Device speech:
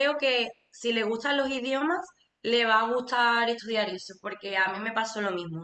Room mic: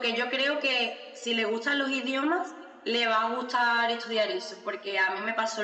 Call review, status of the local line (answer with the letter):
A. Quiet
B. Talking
A